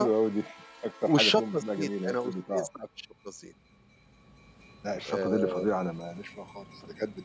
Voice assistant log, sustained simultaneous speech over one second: present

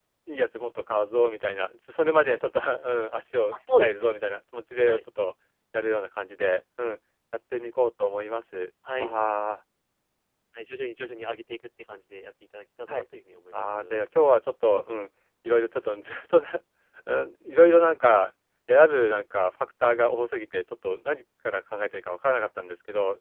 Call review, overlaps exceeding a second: none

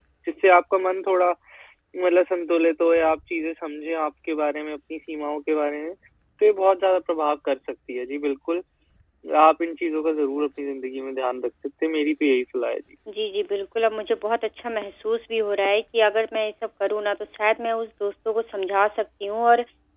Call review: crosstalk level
none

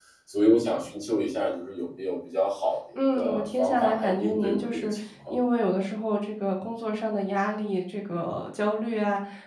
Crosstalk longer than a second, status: present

